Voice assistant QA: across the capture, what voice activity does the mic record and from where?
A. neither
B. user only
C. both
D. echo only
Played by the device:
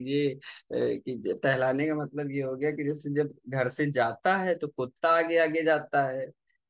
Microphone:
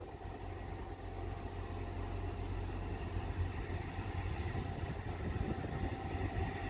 A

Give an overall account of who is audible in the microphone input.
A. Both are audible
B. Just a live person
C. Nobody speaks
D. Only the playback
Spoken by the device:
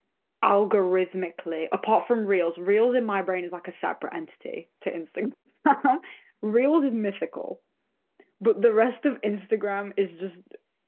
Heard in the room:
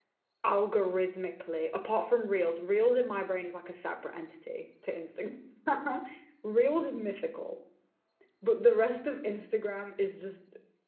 D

